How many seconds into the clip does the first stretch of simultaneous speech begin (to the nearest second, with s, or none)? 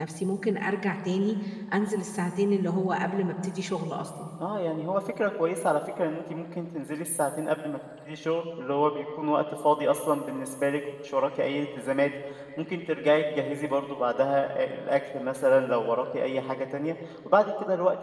none